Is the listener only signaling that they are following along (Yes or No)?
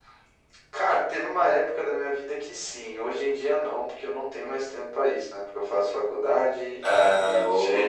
Yes